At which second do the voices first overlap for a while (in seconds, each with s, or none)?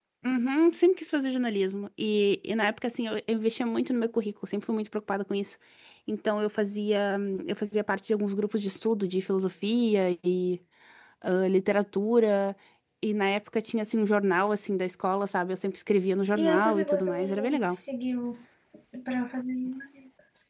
16.3 s